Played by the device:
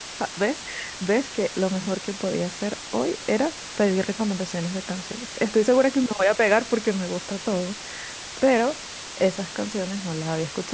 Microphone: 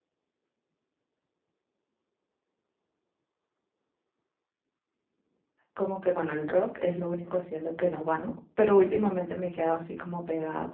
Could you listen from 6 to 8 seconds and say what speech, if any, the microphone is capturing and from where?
user only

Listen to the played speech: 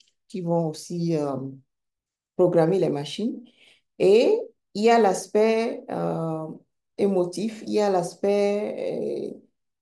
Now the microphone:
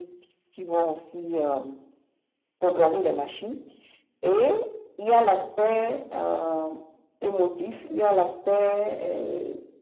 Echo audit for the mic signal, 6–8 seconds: echo only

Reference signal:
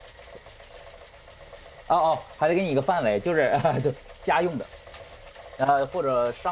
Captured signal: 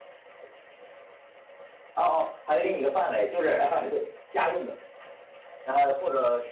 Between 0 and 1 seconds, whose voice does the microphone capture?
neither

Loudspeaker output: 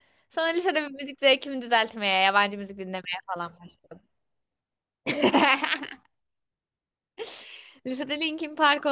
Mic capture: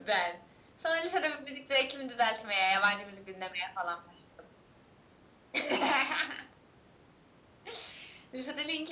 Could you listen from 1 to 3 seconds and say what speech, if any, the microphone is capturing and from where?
echo only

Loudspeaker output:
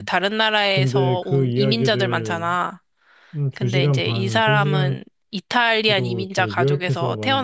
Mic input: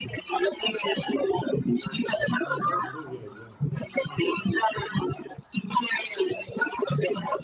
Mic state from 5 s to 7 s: echo only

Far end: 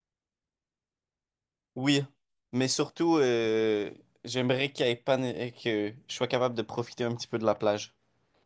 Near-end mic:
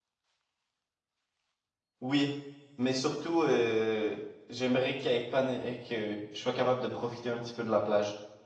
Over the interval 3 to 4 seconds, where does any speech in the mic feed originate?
echo only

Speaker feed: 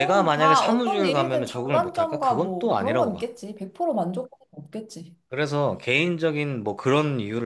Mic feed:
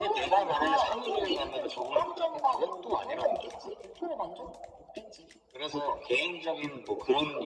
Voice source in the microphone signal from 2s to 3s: echo only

